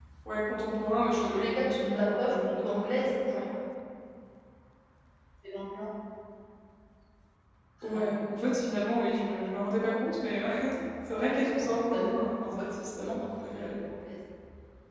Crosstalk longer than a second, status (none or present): present